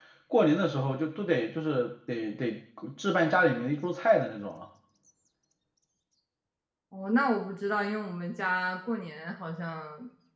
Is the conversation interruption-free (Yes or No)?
Yes